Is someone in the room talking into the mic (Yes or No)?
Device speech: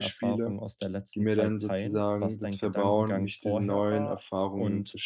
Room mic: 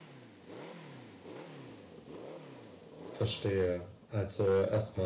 Yes